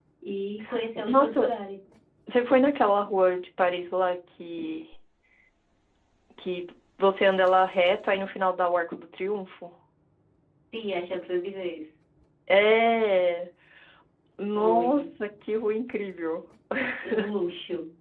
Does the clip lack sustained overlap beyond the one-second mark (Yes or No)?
Yes